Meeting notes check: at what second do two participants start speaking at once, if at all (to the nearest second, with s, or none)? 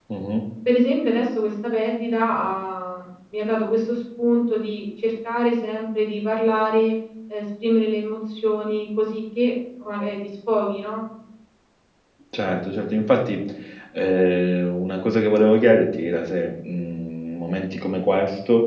none